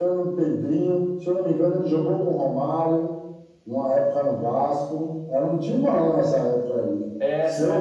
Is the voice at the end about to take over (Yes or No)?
Yes